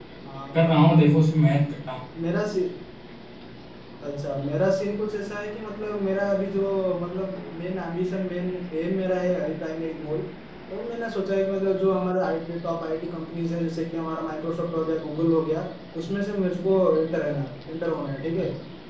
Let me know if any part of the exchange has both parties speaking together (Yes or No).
No